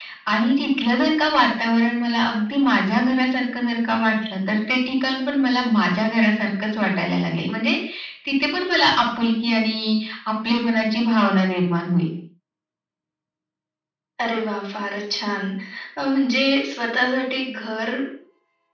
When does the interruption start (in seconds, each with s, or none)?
none